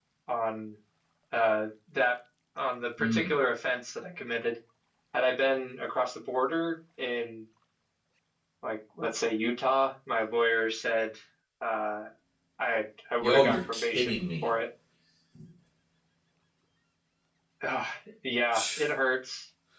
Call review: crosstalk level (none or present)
present